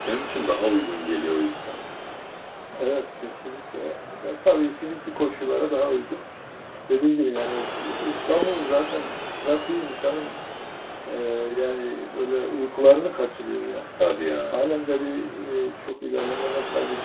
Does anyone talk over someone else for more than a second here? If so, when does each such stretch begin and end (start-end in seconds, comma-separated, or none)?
none